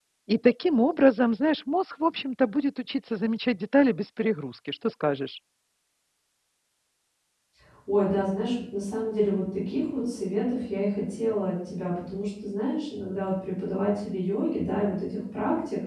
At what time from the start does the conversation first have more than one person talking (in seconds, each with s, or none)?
none